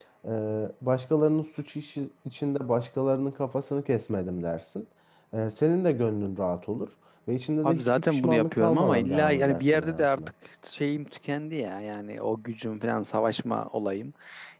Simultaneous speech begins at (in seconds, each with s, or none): 7.6 s